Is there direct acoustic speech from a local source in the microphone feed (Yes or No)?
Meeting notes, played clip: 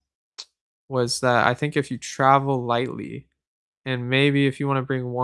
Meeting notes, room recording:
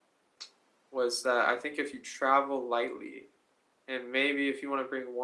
No